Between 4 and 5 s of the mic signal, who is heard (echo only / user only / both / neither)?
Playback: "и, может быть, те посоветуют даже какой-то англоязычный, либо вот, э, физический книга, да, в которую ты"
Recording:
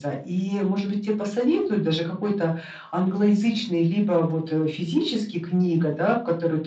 echo only